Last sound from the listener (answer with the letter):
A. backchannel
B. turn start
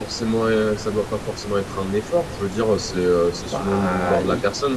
A